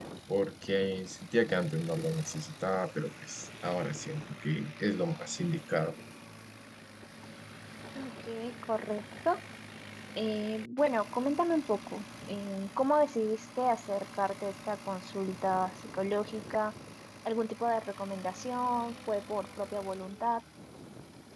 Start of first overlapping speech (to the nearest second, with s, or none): none